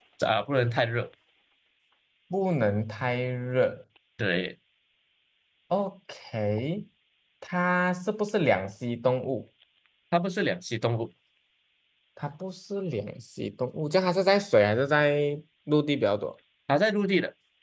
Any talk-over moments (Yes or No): No